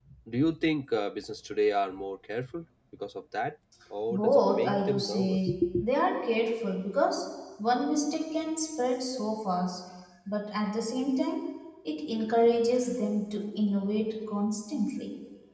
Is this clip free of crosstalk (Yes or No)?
No